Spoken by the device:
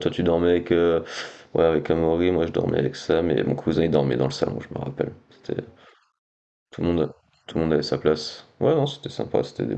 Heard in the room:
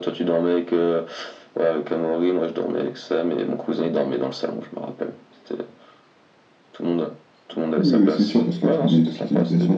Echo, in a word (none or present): present